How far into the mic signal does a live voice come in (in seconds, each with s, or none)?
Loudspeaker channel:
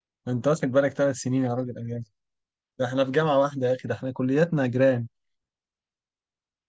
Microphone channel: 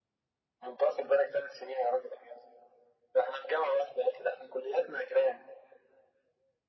none